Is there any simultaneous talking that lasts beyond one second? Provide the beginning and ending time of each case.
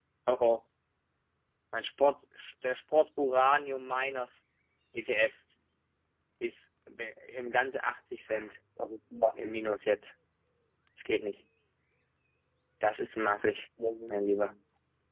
none

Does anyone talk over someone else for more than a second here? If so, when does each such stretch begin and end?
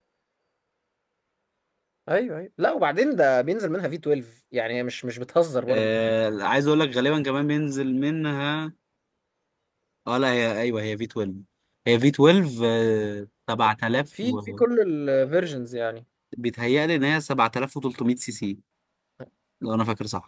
none

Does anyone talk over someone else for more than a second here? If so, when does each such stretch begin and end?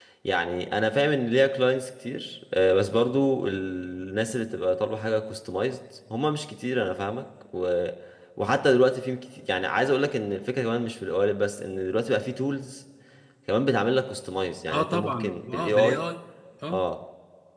14.7-16.0

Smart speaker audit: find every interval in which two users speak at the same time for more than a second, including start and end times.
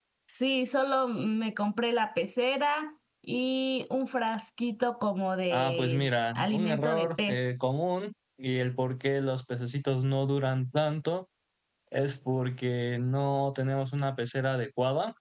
5.5-7.4

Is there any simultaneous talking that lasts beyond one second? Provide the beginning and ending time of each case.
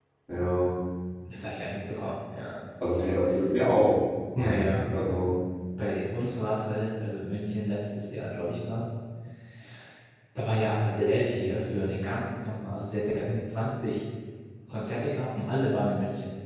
none

